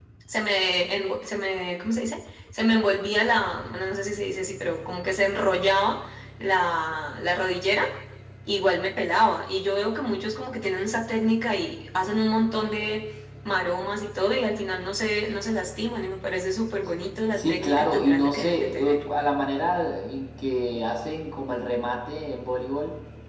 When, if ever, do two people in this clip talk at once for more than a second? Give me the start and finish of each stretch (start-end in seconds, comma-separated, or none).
17.3-19.0